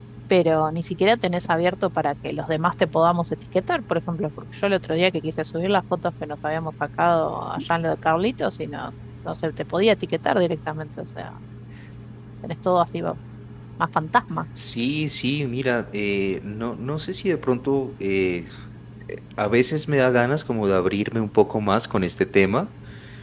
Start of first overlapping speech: none

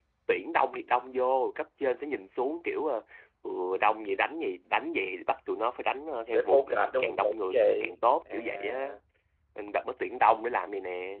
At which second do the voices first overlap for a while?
6 s

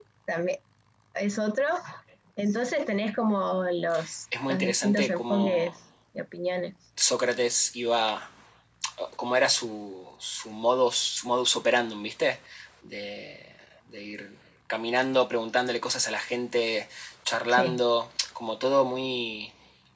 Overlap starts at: 4 s

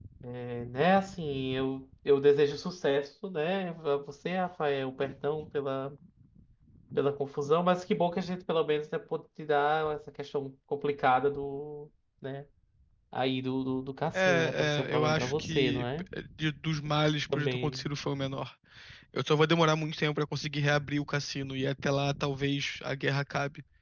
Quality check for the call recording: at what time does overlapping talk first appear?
14 s

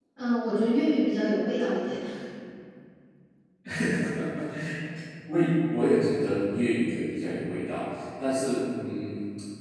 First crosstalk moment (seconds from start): none

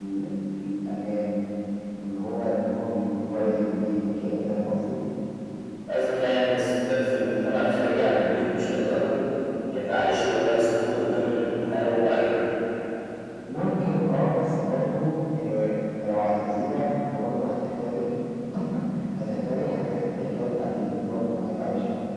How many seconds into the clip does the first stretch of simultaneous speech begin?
none

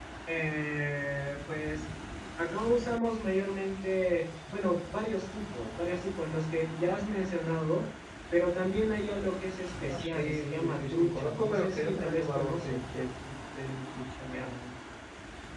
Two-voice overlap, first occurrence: 10 s

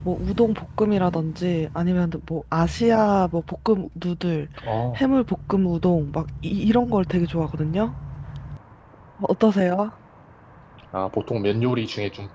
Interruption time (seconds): none

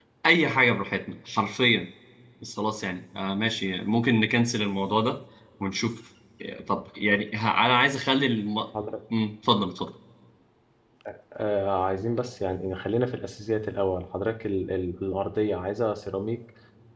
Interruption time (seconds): none

